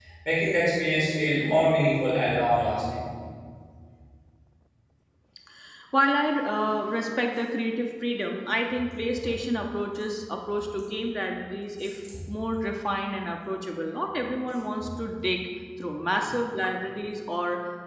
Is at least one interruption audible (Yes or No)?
No